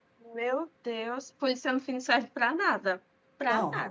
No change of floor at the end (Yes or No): No